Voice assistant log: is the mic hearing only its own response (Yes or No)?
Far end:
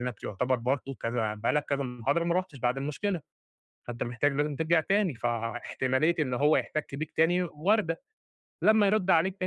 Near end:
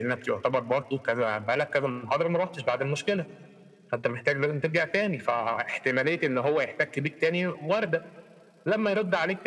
Yes